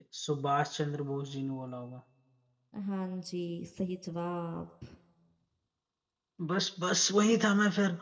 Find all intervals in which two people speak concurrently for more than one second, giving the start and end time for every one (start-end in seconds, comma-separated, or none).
none